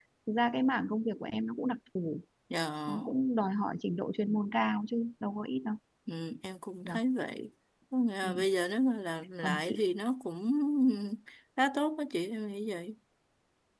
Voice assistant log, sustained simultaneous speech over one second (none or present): none